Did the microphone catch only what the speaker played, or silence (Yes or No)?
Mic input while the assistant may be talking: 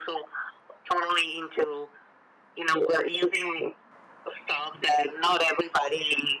Yes